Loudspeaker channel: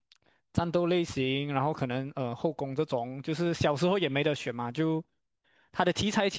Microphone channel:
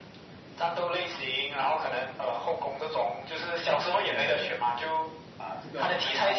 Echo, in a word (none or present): present